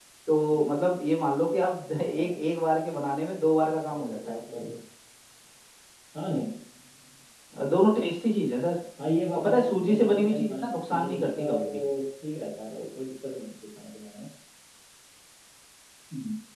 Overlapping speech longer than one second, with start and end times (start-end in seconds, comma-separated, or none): 9.4-11.8